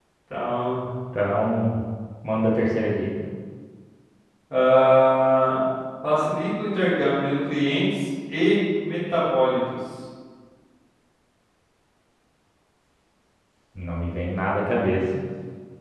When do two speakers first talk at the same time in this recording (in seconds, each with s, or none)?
none